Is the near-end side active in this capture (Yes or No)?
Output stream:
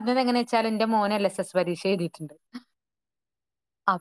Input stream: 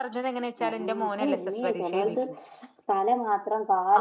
Yes